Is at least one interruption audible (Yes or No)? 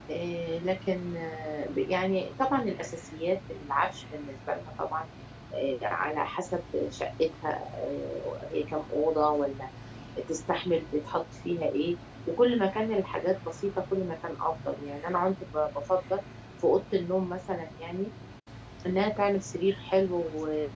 No